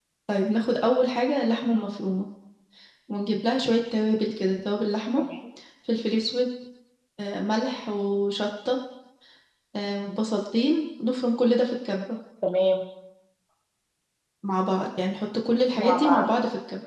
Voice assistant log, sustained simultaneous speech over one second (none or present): none